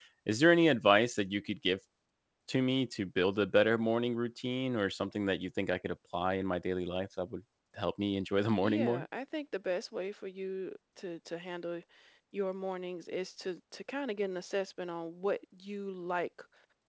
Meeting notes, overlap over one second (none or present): none